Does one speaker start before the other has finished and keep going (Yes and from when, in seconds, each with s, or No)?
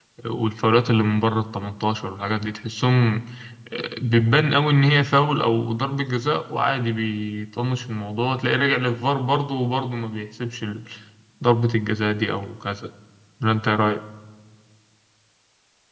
No